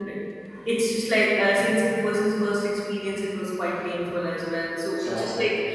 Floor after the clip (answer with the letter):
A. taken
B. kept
B